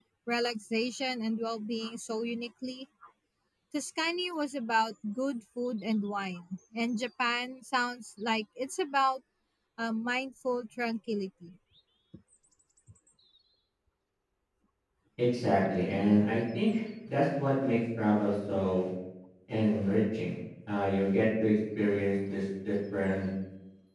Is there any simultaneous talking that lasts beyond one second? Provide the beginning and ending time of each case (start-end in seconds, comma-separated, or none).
none